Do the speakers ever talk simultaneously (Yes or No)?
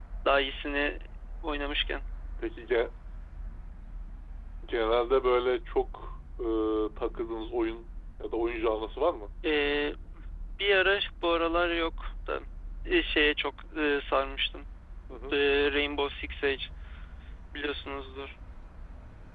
No